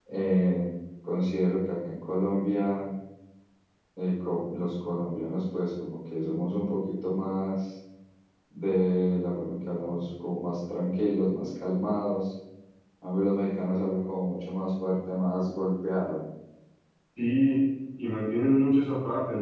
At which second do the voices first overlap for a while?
none

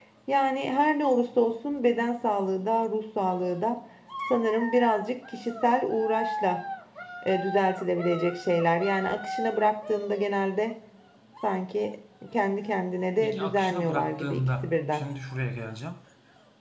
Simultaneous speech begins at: 13.2 s

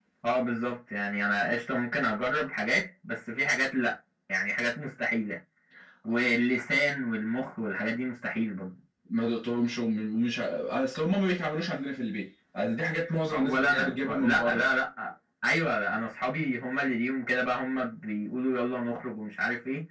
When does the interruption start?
13.3 s

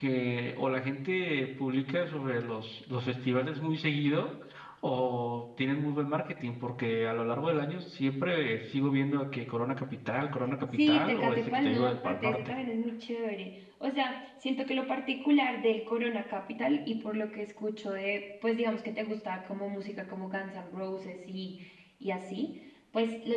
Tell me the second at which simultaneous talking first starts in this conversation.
10.7 s

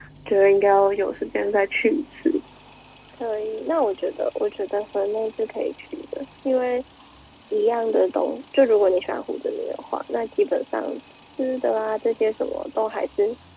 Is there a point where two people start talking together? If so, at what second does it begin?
none

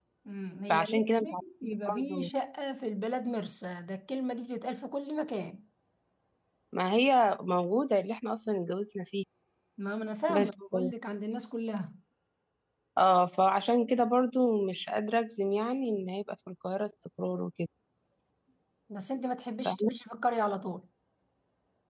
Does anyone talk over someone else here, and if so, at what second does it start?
0.7 s

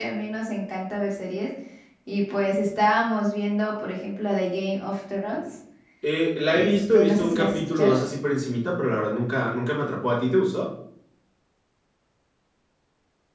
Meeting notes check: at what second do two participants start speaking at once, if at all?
6.5 s

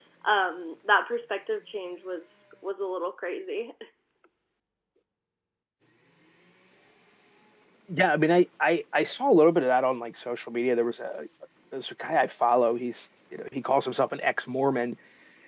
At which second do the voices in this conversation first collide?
none

